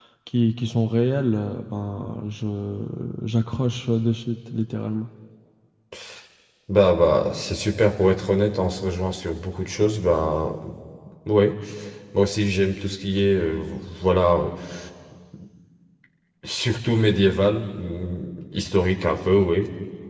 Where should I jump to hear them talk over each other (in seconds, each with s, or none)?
none